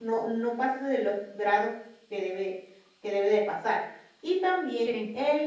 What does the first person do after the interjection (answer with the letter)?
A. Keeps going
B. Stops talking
A